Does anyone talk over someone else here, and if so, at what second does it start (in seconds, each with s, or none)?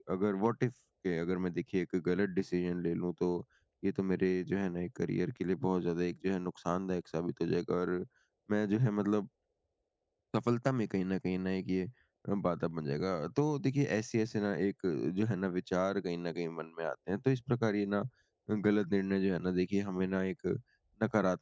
none